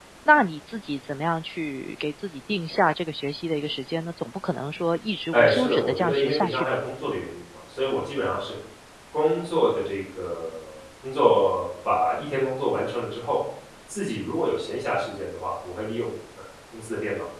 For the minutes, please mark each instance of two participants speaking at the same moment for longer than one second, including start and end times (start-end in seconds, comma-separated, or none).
5.3-6.8